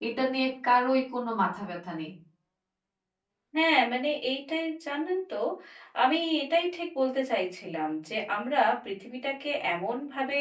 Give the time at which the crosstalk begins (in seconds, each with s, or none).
none